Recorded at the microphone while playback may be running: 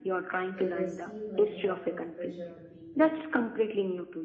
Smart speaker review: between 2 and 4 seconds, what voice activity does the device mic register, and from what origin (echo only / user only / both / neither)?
both